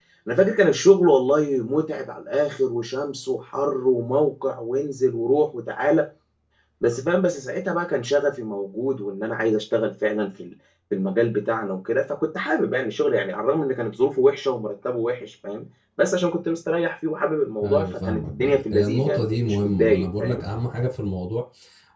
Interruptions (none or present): present